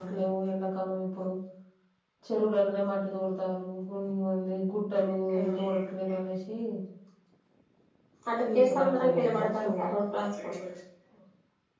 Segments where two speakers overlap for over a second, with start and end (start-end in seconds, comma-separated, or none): 8.4-9.7